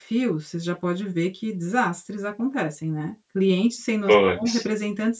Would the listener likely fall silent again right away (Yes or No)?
Yes